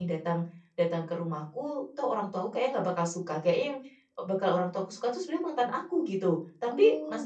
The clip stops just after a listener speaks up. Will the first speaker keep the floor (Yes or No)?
Yes